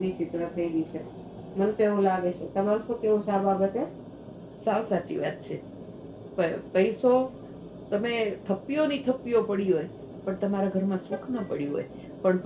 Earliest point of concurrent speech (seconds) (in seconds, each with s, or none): none